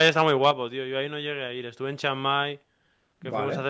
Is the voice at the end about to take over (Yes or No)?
No